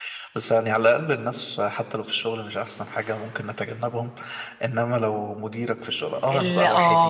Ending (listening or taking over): listening